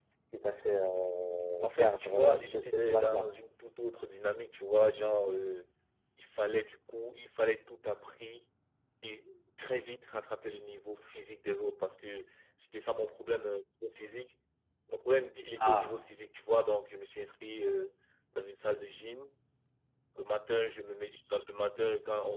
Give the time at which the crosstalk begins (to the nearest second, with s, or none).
2 s